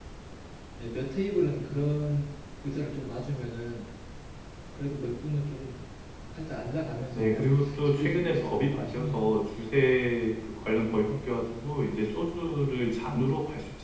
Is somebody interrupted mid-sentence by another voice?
Yes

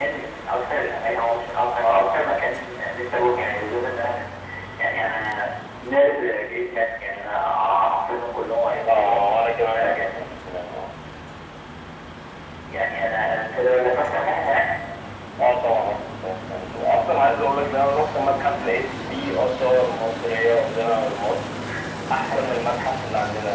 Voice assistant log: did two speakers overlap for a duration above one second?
No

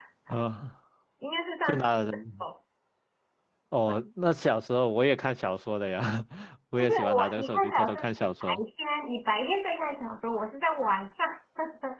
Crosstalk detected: Yes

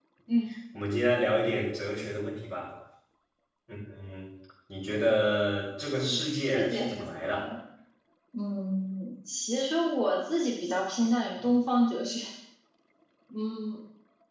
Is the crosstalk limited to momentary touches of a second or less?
No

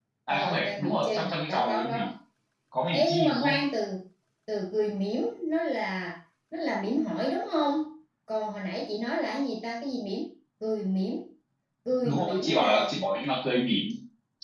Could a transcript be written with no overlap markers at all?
No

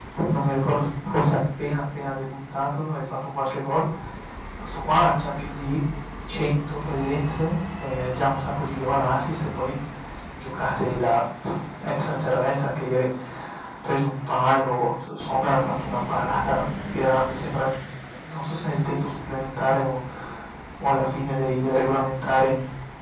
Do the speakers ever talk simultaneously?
No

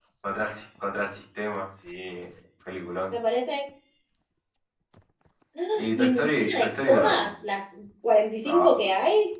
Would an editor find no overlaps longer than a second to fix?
No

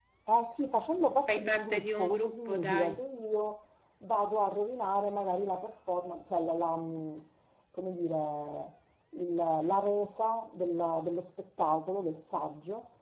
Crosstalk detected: Yes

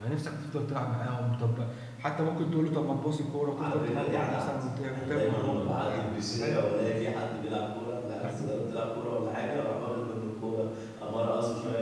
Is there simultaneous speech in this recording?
Yes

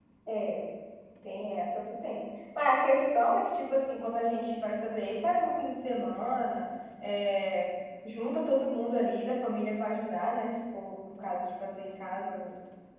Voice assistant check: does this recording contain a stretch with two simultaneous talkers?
No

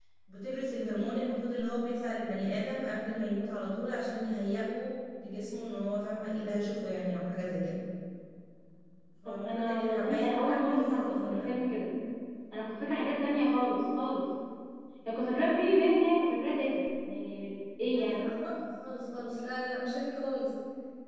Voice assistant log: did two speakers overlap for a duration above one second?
Yes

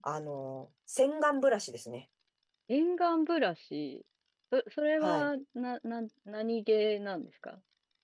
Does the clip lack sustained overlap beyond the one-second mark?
Yes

